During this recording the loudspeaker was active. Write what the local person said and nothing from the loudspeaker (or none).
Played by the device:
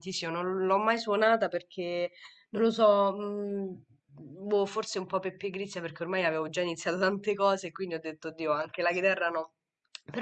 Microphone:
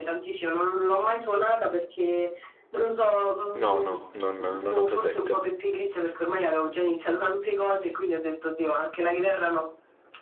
no, no, non, non ho presente.